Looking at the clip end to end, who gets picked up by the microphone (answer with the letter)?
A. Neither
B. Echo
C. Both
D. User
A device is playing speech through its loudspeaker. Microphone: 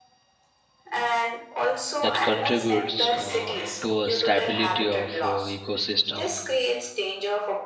C